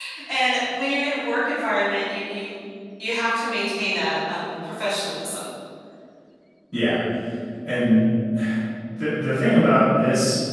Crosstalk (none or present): none